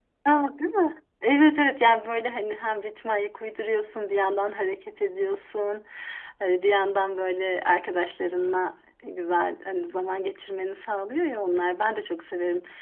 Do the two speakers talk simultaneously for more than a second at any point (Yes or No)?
No